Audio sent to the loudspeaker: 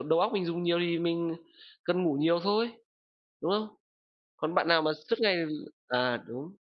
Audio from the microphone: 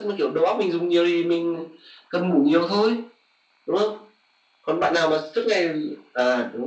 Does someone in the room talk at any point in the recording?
No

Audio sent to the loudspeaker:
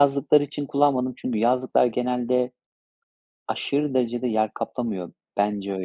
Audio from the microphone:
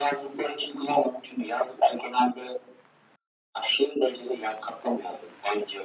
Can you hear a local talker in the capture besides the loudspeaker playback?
No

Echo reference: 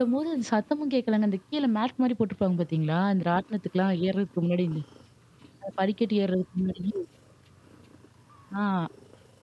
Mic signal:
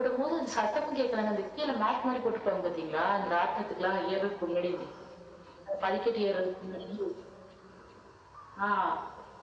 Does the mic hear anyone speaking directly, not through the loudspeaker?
No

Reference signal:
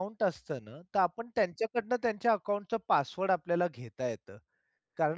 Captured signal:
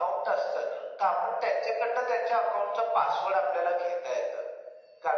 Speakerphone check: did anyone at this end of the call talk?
No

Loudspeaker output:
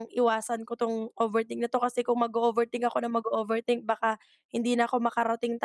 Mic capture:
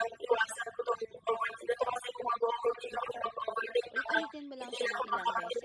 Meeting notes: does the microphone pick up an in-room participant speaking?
Yes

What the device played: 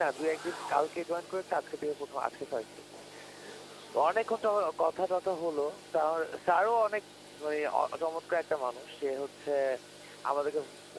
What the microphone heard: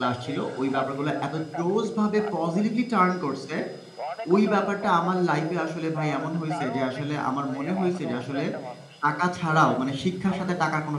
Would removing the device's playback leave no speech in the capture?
No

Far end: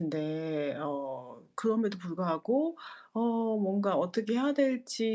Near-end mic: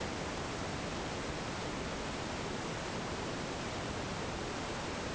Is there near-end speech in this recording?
No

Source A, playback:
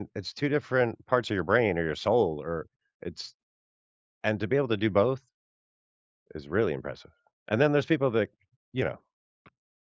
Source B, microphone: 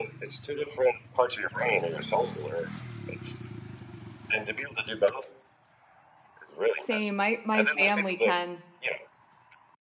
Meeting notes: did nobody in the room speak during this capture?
No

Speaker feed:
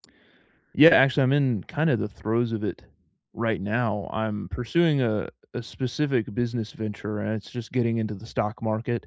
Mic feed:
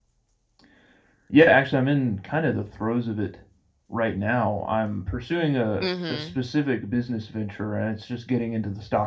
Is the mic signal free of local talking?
No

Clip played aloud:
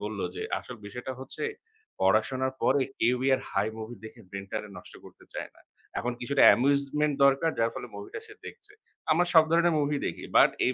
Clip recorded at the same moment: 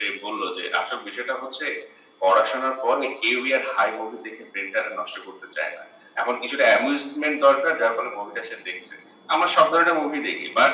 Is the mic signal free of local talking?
Yes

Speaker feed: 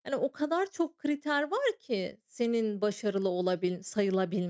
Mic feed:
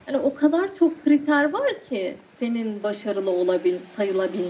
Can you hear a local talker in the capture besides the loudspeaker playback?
No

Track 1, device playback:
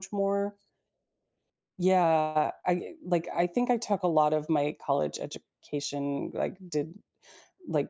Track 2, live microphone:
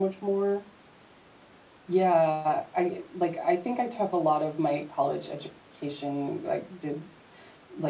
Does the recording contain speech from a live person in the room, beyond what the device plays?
No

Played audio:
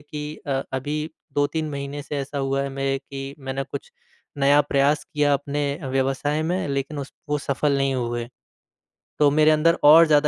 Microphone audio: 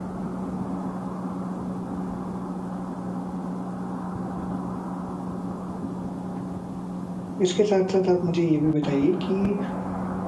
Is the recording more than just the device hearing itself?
Yes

